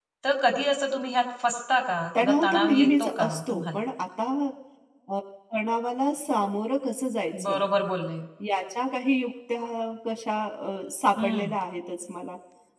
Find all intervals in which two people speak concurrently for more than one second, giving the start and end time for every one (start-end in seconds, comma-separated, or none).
2.2-3.9